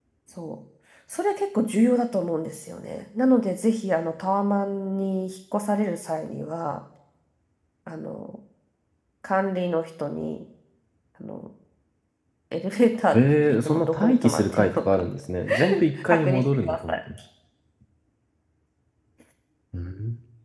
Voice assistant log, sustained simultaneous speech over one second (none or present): present